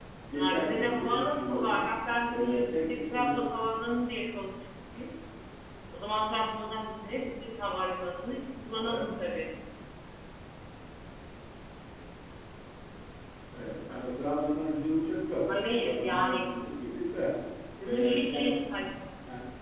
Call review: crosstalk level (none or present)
present